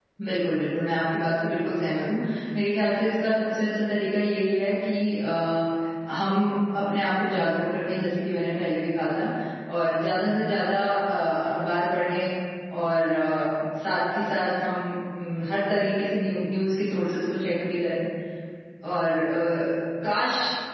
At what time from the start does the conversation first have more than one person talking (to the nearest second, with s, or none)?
none